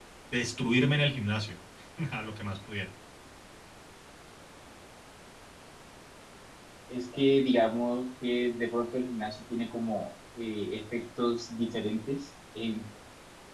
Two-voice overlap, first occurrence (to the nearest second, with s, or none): none